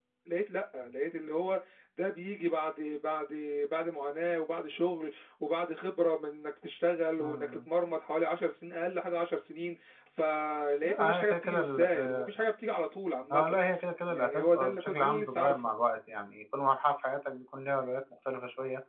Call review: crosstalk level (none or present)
present